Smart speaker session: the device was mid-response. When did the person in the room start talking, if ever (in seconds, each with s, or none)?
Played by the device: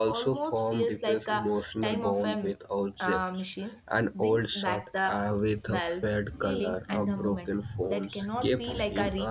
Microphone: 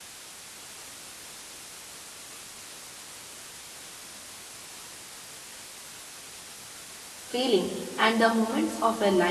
7.2 s